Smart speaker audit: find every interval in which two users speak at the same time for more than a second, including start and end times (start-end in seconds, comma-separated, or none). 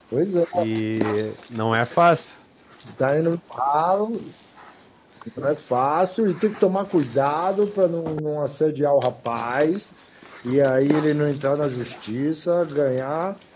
none